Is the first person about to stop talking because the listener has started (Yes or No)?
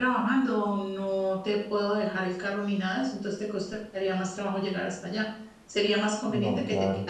No